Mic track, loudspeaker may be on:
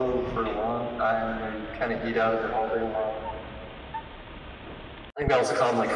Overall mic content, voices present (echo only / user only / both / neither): echo only